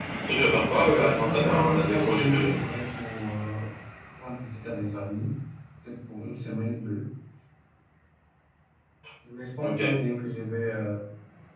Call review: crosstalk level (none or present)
present